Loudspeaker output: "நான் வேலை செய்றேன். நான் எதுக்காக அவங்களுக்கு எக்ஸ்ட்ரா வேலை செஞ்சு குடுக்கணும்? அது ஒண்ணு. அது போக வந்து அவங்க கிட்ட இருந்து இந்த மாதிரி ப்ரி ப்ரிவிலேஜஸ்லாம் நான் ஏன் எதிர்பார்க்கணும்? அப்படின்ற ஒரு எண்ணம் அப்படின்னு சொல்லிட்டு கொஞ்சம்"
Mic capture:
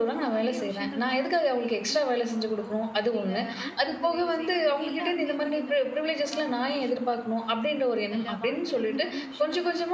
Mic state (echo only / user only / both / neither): both